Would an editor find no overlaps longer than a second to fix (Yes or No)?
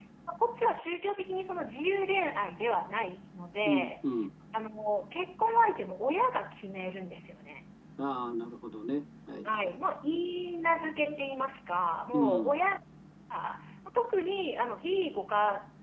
Yes